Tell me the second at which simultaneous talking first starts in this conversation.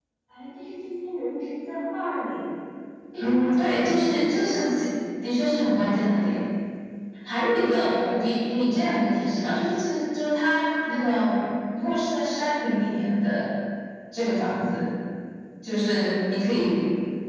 3 s

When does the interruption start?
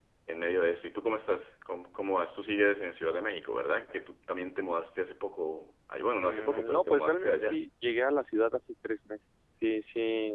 6 s

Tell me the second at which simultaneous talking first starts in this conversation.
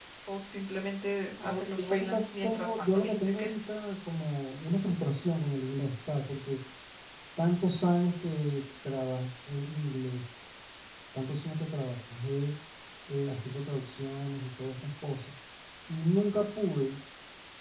1 s

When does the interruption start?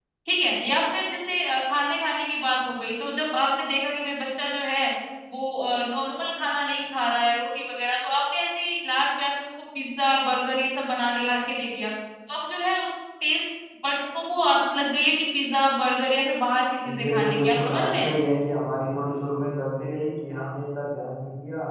17 s

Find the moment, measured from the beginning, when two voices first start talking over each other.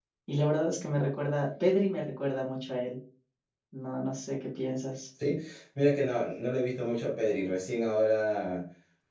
none

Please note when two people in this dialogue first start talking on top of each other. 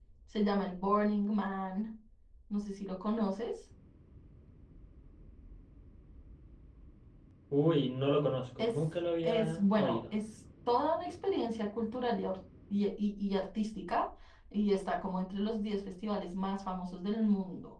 9 s

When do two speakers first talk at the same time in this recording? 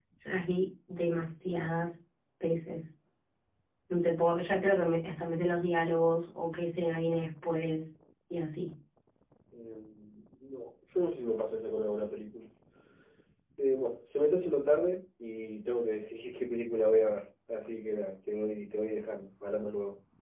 none

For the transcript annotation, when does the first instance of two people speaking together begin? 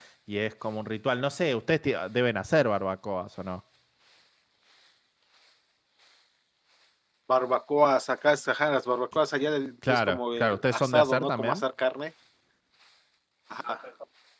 10 s

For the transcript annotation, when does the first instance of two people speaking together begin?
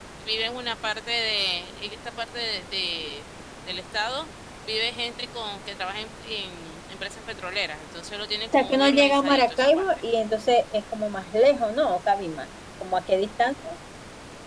9 s

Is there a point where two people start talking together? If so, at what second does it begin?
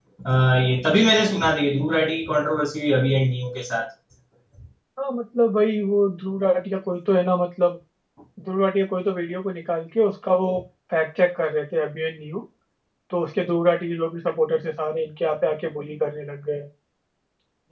none

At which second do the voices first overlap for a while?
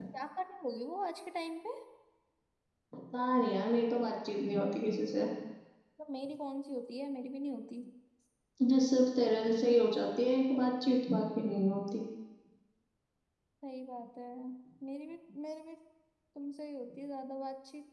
none

